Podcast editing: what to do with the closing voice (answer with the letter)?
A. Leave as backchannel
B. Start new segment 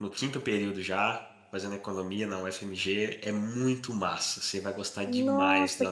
B